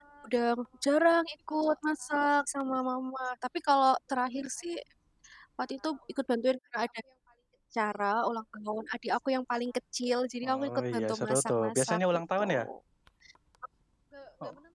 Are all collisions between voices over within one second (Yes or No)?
No